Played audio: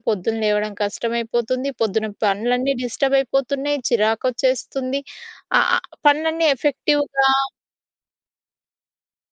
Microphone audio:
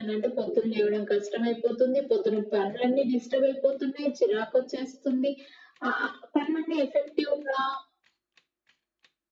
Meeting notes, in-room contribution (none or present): none